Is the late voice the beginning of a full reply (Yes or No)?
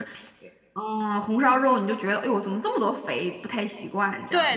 Yes